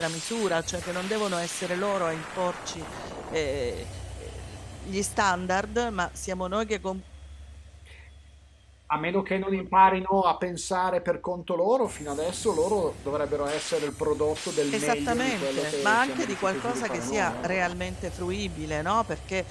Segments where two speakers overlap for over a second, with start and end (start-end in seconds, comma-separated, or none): 14.7-17.5